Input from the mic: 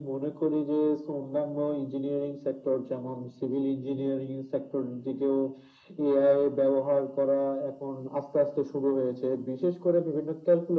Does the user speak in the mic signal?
No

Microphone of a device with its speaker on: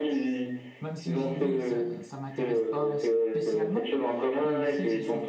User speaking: Yes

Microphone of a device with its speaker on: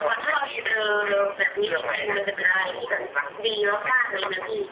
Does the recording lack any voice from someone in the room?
Yes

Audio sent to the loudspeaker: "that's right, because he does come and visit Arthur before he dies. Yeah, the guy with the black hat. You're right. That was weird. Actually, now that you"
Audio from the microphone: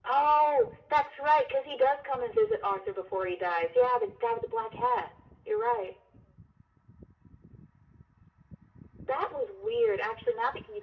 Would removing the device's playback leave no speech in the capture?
Yes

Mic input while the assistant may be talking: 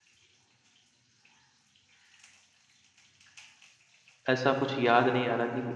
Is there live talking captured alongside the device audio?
Yes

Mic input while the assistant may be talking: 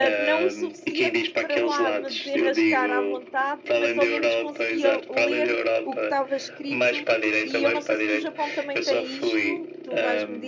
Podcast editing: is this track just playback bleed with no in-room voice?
No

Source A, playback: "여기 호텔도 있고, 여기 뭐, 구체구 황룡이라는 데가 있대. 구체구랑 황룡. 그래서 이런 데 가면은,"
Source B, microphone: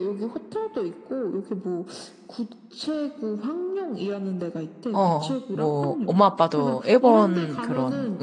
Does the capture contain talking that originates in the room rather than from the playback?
Yes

